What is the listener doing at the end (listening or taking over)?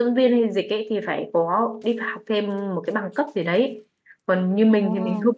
listening